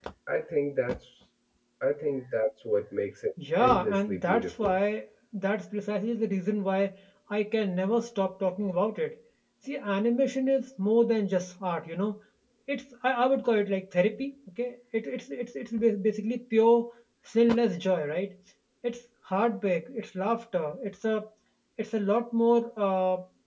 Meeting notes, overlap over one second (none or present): present